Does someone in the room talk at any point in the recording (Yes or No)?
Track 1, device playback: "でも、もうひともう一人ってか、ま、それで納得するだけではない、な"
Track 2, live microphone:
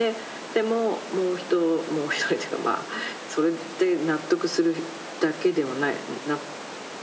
No